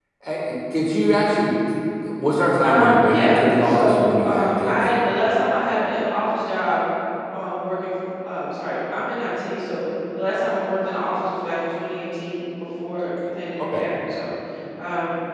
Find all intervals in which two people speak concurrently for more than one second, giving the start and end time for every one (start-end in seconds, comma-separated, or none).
2.6-4.8